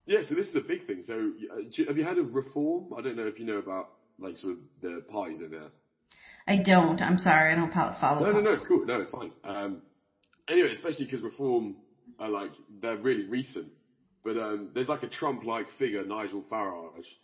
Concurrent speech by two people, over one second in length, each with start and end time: none

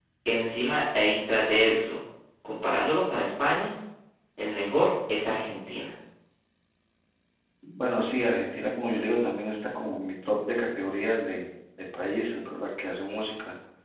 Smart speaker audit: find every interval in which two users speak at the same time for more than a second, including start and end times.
none

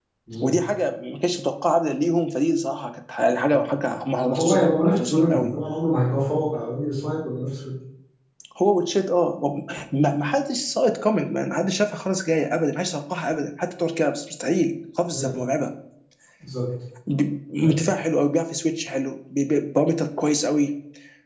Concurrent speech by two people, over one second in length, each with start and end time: 4.3-5.5

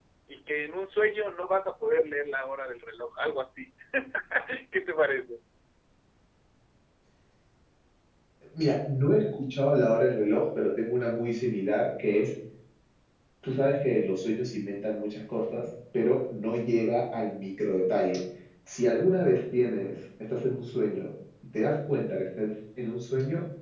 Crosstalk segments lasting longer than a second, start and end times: none

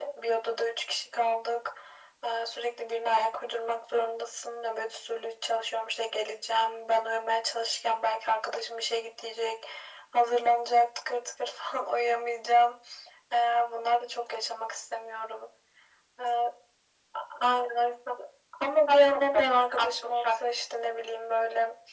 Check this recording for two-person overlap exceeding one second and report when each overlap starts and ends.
18.9-20.2

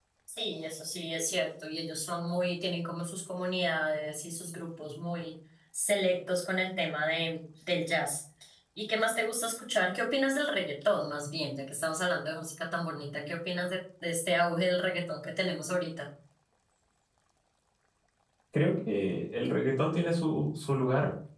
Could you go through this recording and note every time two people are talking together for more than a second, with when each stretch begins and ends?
none

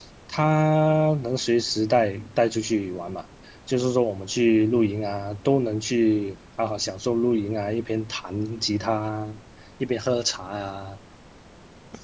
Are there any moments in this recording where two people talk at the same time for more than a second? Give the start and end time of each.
none

